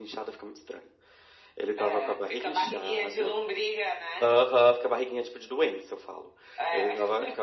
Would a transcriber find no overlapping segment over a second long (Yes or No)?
No